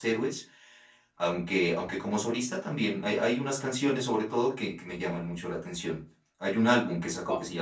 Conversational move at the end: listening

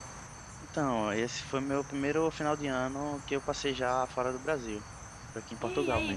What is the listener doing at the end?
taking over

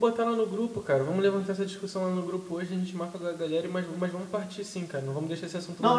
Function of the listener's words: taking over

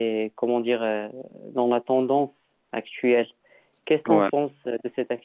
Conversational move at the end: listening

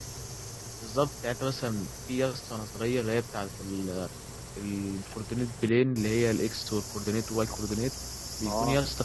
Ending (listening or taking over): listening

